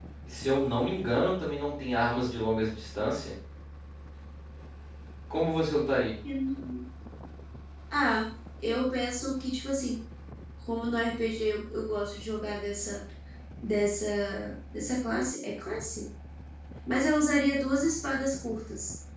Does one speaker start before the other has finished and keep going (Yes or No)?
No